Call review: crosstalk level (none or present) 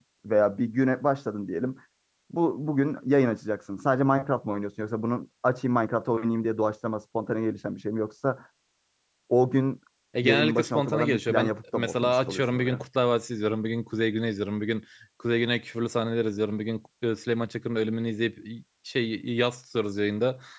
present